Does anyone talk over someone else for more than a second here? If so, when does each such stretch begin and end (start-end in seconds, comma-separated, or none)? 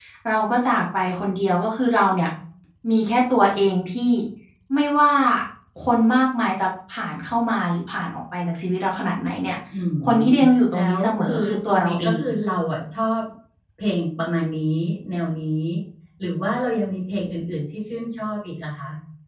10.7-12.2